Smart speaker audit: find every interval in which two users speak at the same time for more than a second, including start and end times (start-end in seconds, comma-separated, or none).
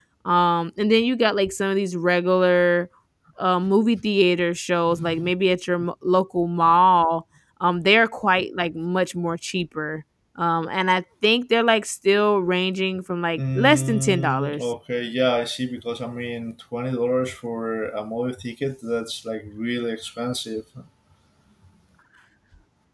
13.4-14.6